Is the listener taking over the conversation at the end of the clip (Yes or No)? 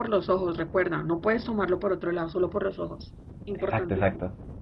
Yes